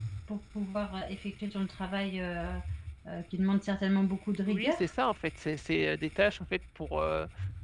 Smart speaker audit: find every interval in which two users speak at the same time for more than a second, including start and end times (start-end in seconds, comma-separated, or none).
none